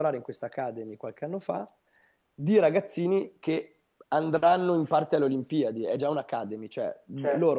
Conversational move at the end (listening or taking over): listening